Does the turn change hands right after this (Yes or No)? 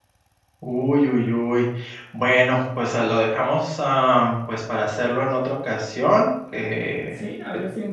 Yes